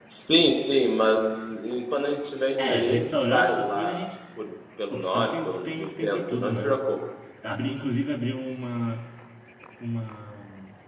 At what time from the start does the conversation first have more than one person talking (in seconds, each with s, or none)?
2.6 s